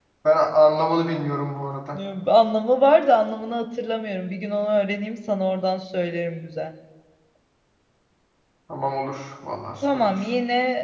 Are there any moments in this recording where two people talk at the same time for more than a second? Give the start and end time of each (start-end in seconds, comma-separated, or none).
none